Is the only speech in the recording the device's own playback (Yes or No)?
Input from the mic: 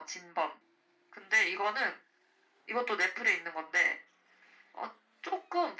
Yes